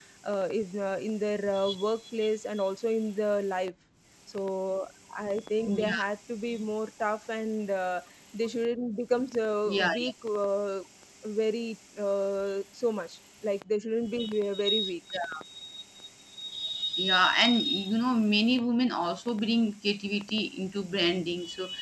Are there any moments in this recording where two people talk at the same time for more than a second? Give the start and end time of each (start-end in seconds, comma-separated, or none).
none